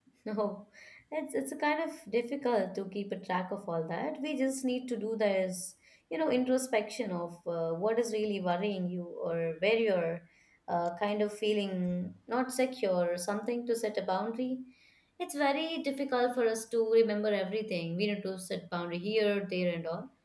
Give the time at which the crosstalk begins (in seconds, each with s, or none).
none